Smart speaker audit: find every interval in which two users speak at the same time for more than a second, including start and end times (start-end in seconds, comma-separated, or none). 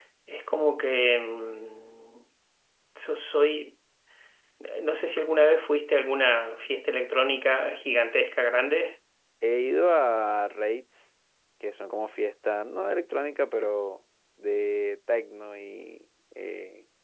none